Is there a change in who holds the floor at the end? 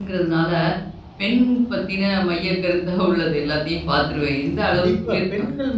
Yes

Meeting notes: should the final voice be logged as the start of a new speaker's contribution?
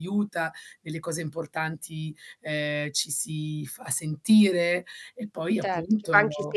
Yes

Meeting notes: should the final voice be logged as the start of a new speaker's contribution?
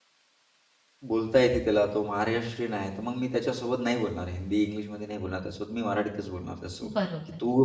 No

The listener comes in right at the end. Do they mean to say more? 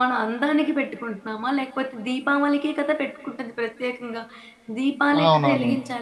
No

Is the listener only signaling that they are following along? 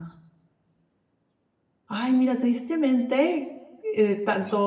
Yes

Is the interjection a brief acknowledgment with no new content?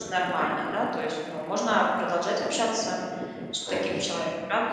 No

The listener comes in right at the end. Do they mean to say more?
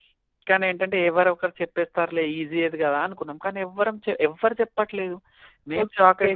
No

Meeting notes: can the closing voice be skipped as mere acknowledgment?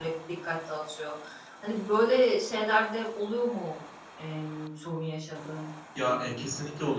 No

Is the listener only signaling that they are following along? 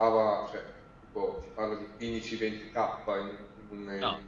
Yes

